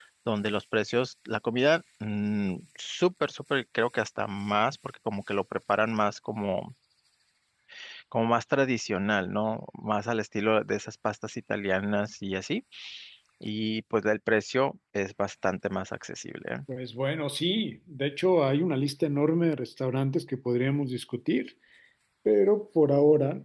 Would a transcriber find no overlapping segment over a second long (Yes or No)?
Yes